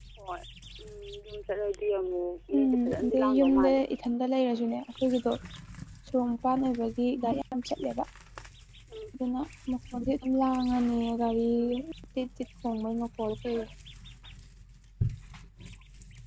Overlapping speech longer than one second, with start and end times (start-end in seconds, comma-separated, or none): 2.6-3.8